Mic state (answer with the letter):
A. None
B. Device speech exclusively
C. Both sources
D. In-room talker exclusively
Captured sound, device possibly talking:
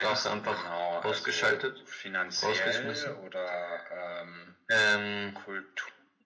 B